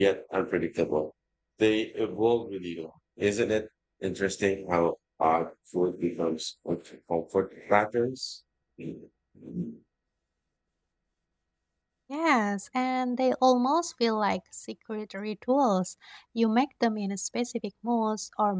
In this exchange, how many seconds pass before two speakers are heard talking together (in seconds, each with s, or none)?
none